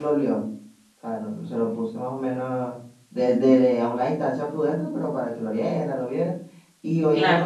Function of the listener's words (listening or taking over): listening